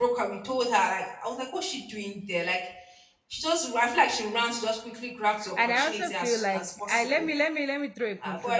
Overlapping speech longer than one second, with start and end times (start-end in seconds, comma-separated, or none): 5.6-7.3